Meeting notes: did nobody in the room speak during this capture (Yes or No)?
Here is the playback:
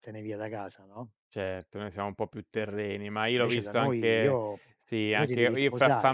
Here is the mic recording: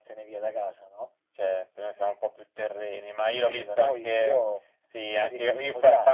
Yes